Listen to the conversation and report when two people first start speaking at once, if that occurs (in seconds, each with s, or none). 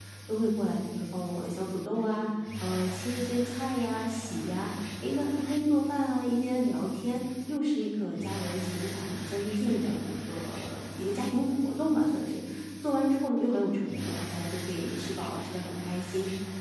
none